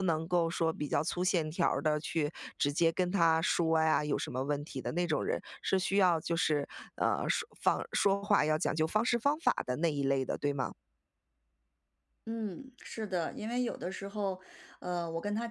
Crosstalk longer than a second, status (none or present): none